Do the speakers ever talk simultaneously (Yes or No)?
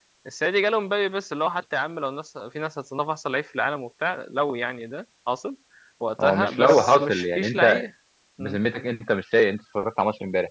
Yes